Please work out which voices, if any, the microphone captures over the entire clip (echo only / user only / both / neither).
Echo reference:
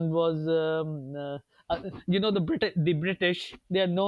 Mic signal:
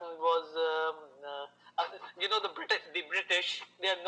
echo only